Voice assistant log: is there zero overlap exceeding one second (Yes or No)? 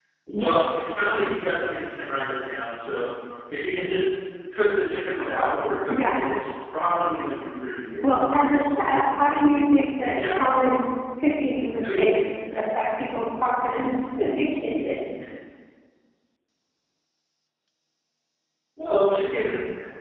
Yes